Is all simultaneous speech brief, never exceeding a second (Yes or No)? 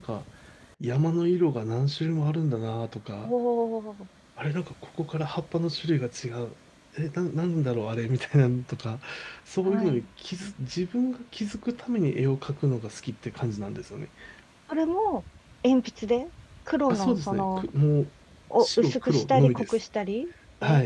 No